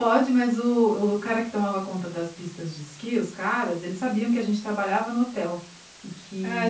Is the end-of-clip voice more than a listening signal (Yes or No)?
Yes